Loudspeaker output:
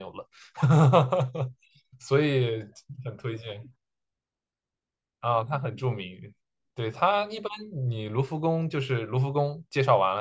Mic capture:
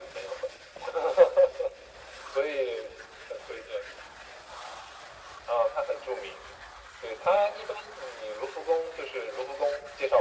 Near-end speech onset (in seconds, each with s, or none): none